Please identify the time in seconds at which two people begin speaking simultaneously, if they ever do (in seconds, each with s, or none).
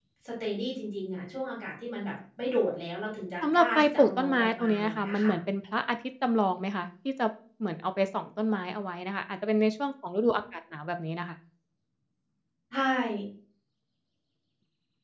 3.4 s